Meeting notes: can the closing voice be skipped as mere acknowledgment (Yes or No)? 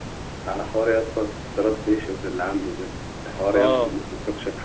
Yes